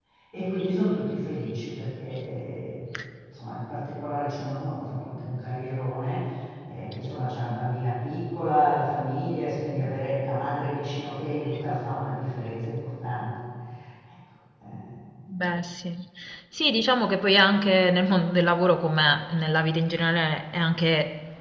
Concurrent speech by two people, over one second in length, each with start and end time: none

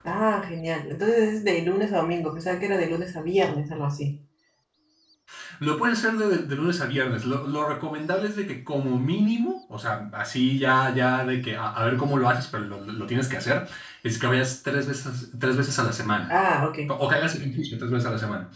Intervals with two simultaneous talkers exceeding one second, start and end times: none

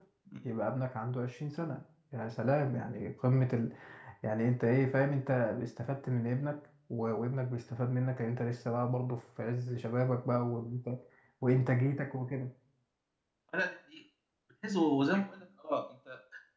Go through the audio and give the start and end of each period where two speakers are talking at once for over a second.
none

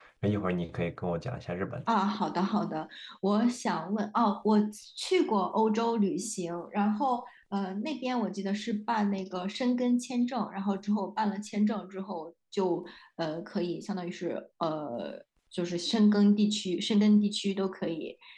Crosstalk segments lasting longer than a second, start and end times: none

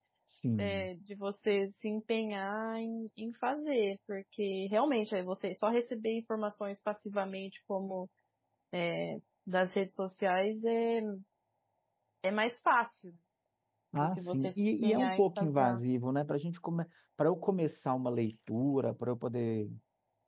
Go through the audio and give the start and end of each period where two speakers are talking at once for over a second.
14.0-15.8

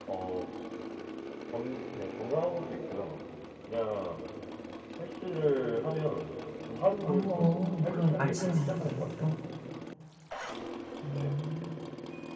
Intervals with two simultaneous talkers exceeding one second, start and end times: 7.1-9.3

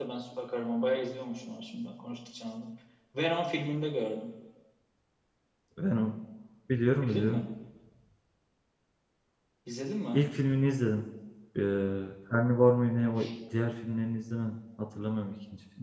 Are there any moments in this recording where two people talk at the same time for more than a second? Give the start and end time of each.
none

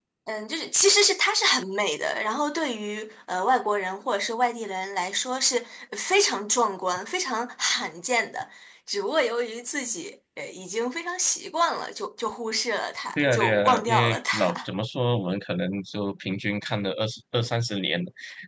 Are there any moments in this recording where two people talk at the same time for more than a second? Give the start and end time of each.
13.2-14.7

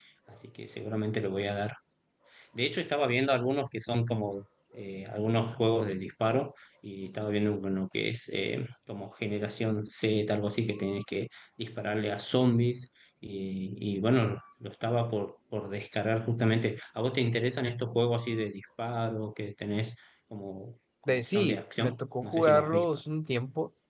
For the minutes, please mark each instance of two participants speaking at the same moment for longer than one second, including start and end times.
21.1-22.9

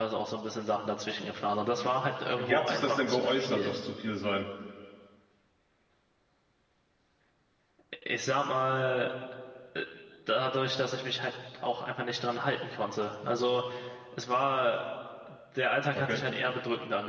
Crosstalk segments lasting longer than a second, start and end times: 2.4-3.7

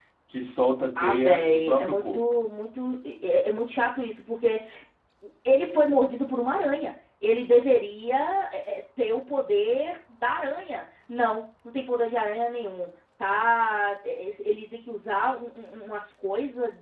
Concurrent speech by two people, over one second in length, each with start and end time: 1.0-2.2

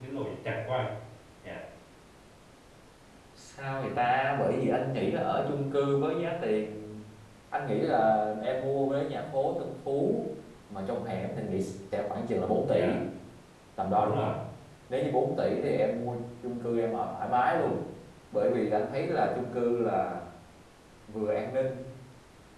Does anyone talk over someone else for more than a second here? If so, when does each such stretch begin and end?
none

